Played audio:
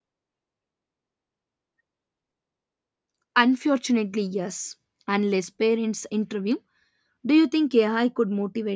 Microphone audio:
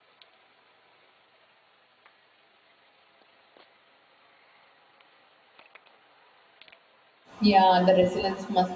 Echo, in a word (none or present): none